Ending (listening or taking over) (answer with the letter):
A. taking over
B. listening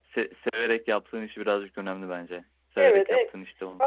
A